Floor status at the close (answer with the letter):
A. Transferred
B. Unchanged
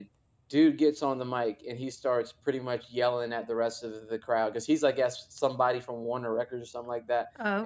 B